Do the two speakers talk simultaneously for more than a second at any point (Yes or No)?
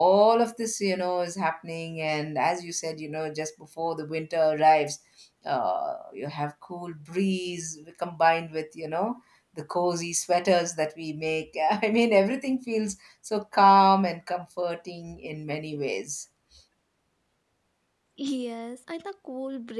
No